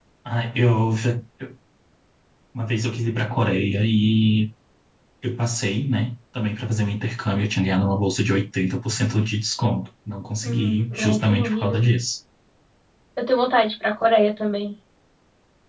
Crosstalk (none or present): present